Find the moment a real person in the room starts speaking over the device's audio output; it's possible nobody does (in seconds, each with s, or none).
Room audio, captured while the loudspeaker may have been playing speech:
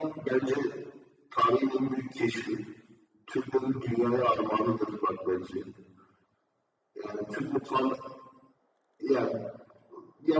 none